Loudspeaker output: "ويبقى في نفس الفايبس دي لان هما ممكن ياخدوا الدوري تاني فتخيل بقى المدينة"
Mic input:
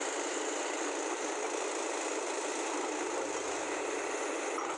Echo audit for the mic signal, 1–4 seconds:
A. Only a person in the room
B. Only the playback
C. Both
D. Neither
D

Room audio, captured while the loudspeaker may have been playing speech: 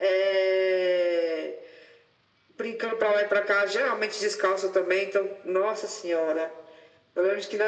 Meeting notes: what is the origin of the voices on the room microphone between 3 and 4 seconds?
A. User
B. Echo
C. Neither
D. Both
B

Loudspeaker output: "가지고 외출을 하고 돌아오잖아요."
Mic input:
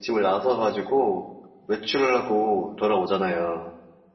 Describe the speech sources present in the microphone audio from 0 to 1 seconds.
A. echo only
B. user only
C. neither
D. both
A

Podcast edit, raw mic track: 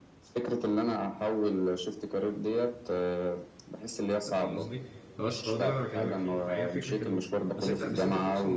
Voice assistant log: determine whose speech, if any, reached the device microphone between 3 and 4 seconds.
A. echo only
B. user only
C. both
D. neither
A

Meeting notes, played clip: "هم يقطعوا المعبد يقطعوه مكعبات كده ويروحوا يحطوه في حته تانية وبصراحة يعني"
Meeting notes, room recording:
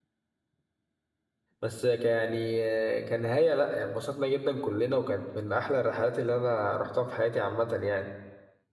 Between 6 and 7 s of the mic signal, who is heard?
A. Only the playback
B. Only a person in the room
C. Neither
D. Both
B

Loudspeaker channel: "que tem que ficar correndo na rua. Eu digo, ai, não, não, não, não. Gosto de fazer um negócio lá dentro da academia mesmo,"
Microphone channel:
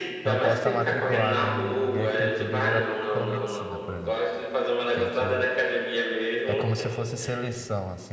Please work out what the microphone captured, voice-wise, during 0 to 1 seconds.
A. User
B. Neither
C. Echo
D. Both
D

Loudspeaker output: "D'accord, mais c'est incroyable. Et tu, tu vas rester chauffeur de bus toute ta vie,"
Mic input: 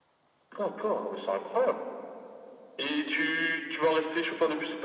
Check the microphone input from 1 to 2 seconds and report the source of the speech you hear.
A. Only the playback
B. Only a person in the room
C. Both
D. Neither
A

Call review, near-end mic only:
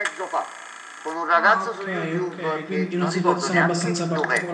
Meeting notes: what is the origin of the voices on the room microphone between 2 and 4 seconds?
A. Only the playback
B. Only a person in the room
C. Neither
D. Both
D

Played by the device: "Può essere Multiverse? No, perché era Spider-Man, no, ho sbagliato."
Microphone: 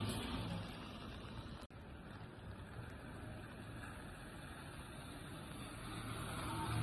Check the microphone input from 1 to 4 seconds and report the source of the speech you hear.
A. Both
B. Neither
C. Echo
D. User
B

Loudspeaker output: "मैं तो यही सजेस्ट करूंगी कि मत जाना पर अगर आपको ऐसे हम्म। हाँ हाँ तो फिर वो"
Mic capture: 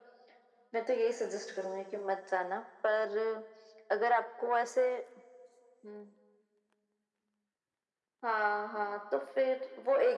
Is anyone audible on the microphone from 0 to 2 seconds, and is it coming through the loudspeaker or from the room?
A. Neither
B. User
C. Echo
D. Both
C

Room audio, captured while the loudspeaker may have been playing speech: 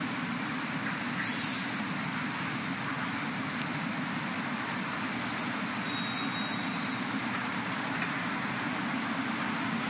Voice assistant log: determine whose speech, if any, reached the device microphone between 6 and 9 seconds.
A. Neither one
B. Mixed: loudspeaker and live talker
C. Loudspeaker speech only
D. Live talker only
A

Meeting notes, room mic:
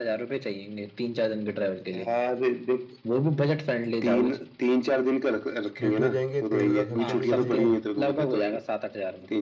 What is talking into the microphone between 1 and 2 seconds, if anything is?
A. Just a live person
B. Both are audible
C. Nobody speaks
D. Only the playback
D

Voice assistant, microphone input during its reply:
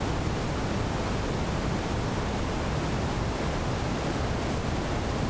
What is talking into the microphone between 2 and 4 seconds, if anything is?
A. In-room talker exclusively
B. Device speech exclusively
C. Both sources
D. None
D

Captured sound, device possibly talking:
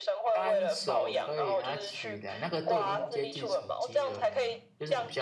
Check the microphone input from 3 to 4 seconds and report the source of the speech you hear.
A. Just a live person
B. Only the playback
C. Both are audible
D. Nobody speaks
C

